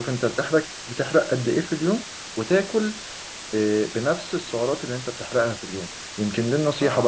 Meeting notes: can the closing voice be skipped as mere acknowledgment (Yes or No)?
Yes